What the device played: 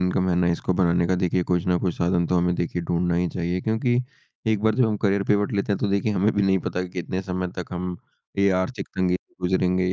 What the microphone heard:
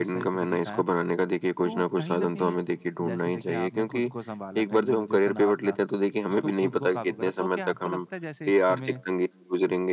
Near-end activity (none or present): present